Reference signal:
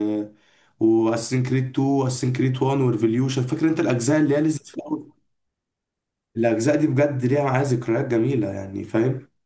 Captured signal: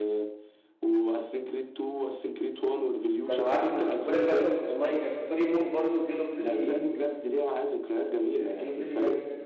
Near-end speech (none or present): present